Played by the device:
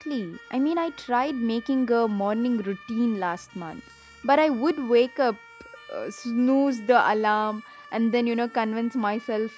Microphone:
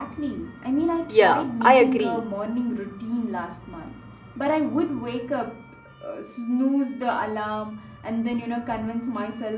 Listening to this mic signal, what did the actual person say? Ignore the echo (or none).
Yeah, I agree.